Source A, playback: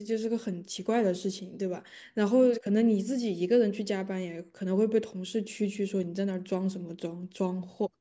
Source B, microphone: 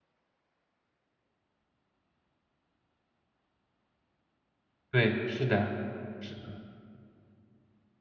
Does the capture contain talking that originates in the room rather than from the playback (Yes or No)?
Yes